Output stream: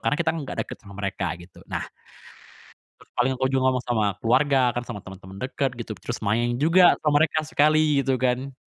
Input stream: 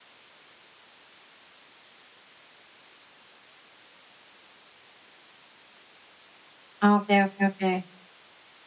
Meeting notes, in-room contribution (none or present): present